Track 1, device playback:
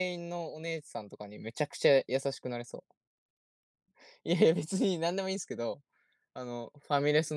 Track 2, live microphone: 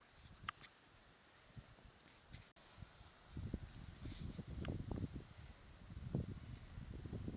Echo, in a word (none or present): none